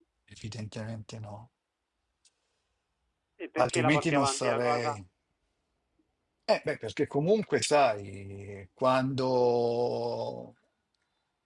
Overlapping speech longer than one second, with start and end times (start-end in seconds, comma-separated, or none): 3.6-5.0